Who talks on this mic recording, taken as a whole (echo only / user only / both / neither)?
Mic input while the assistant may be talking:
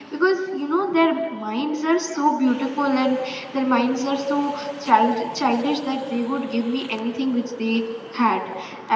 echo only